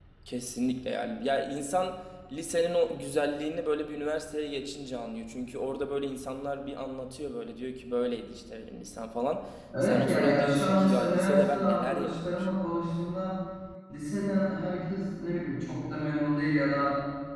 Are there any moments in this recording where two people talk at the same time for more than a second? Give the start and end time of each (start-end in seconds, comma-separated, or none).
9.8-12.6